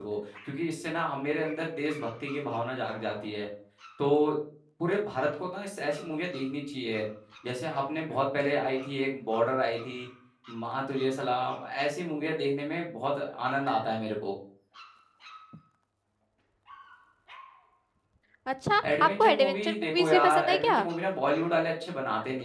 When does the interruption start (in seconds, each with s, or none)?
19.0 s